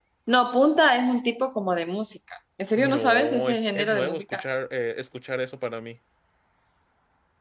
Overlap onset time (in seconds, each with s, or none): 2.8 s